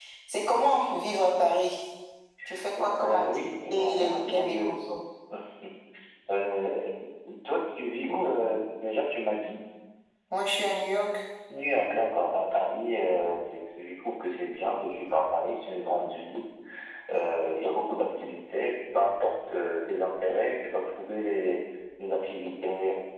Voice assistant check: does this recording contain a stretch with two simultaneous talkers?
Yes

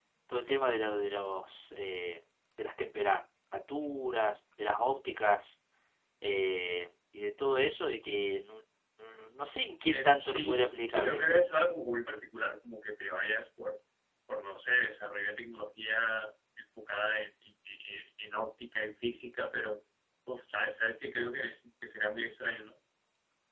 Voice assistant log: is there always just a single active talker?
No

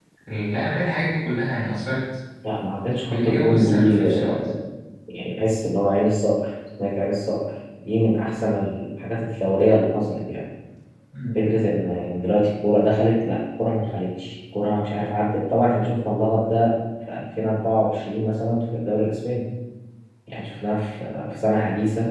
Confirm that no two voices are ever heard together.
No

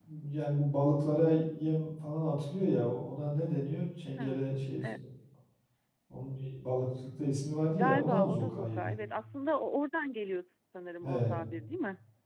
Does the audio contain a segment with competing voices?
Yes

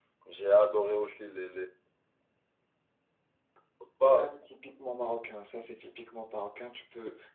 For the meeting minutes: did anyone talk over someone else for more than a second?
No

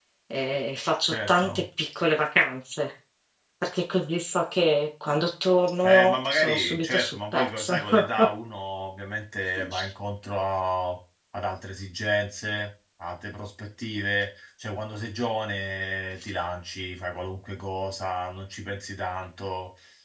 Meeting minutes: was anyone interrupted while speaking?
Yes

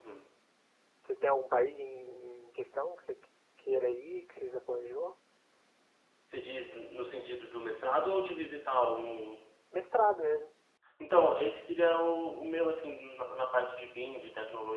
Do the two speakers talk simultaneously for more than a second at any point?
No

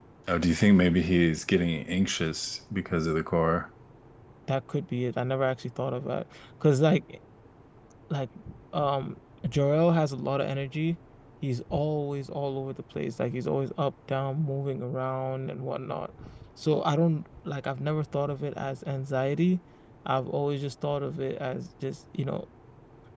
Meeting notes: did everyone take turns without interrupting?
Yes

